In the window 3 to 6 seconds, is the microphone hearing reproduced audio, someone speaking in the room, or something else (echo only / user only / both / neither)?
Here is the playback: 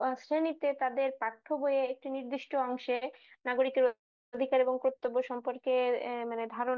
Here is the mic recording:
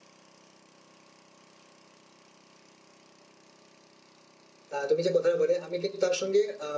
user only